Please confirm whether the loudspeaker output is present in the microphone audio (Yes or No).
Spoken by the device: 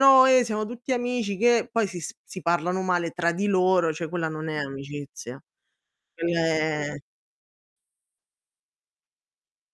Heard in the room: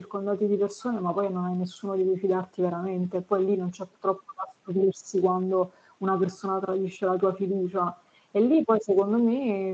No